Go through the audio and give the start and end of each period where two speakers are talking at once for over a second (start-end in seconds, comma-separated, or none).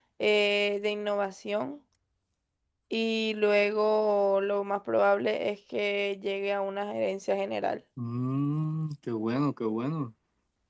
none